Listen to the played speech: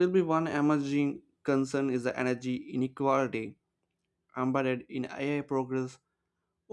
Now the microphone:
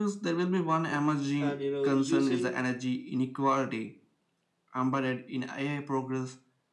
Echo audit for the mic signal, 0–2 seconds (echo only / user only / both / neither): both